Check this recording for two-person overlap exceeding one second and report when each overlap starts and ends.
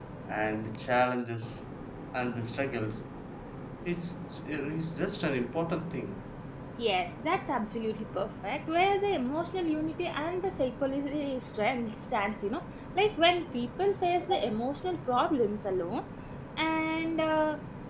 none

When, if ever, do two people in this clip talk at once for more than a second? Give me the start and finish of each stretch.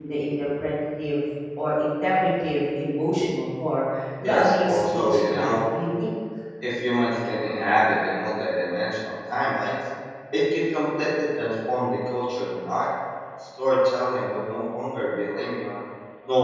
4.2-5.6

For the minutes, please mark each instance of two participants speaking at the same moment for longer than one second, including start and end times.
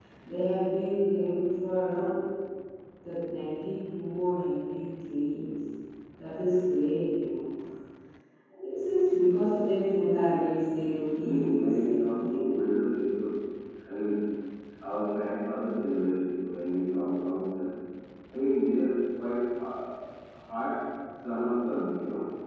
11.2-12.4

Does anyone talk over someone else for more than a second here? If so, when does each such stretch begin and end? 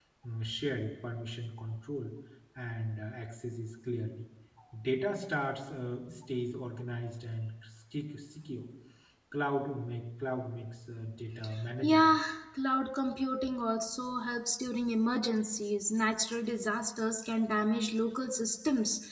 none

